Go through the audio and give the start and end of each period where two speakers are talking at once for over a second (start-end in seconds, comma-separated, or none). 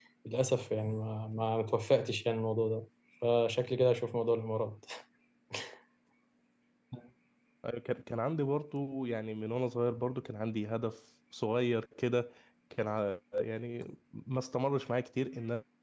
none